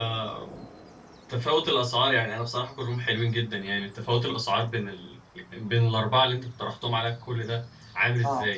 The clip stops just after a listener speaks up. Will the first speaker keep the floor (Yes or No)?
No